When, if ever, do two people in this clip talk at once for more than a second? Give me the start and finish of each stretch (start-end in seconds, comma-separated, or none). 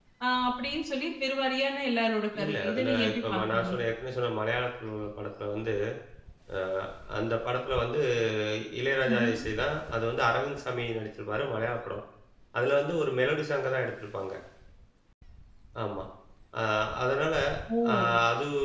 2.4-3.7